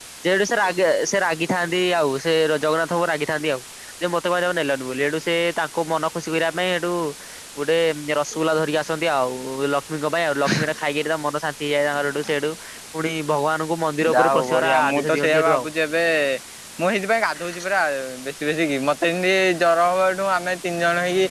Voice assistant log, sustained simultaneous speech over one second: present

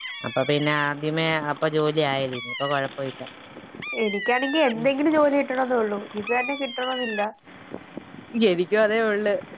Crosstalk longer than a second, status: none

